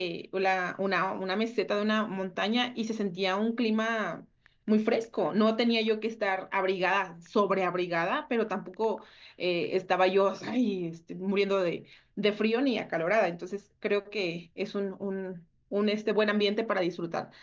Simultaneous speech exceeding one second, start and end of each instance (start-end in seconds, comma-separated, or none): none